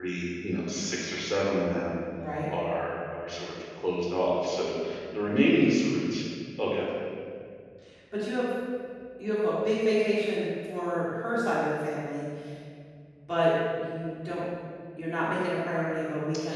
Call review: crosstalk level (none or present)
none